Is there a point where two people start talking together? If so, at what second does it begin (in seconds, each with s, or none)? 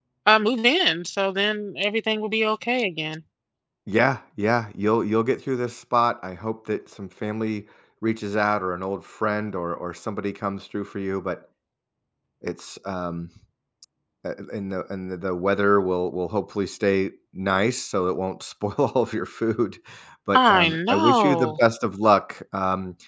20.3 s